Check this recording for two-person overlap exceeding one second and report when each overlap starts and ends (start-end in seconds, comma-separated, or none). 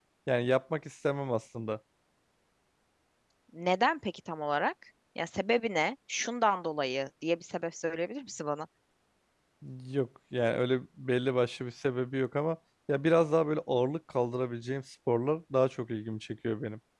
none